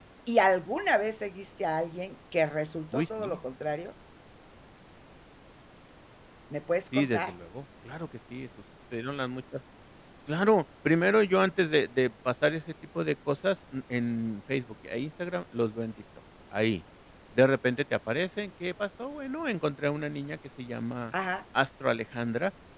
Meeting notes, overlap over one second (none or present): none